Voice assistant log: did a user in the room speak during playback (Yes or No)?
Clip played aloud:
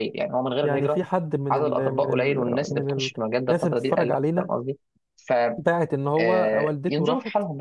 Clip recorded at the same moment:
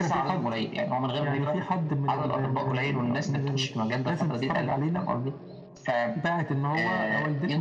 No